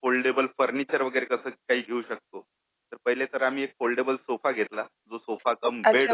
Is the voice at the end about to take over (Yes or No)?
Yes